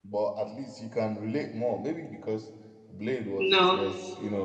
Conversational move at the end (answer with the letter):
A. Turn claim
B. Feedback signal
B